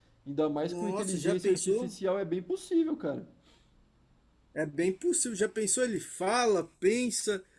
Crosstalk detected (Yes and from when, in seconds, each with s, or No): Yes, from 0.6 s